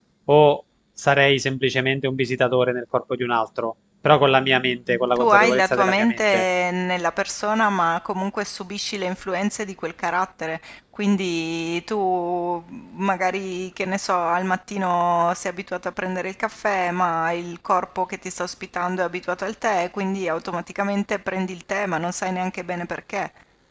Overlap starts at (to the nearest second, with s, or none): 5 s